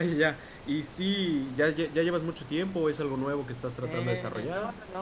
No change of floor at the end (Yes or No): No